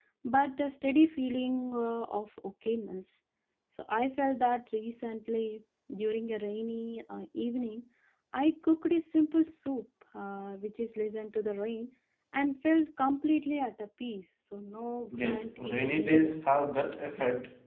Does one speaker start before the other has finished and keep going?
Yes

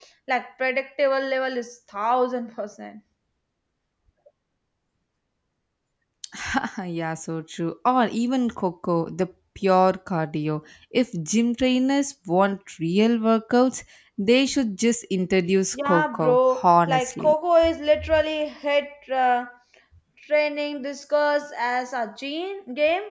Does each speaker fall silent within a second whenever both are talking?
No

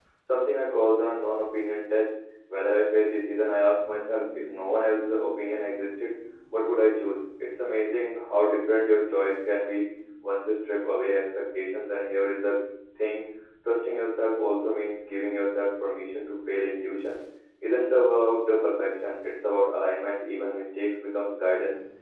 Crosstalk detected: No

